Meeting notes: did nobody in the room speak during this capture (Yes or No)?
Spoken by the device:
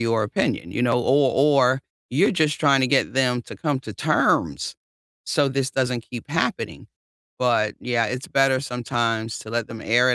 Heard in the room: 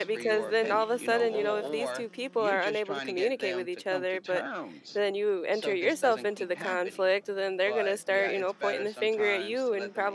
No